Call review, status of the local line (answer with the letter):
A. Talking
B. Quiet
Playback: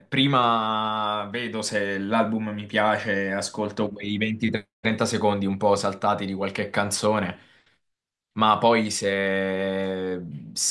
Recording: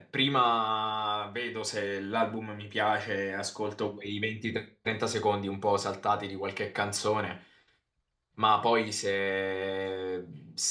B